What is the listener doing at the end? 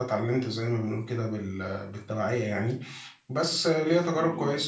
listening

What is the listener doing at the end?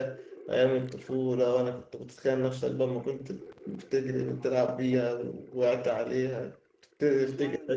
taking over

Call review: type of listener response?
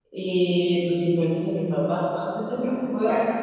listening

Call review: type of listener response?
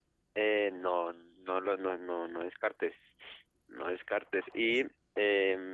listening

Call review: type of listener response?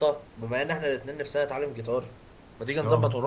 listening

